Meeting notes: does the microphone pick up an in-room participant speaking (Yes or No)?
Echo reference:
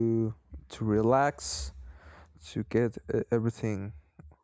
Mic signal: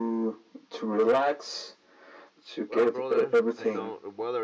Yes